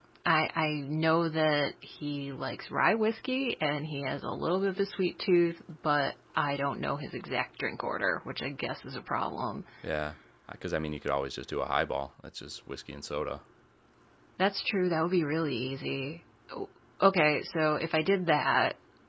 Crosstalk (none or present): none